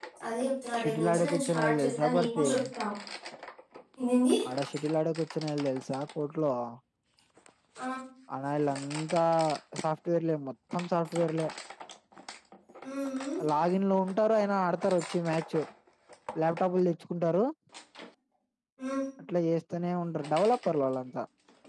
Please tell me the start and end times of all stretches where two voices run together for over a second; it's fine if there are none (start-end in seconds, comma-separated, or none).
0.8-2.5